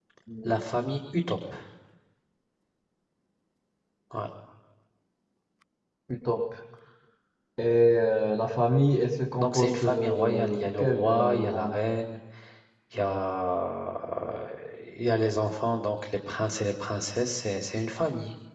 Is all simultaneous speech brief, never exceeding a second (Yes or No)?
No